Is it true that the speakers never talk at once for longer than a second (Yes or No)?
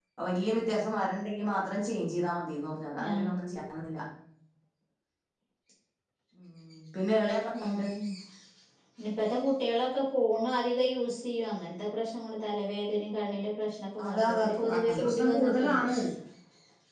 No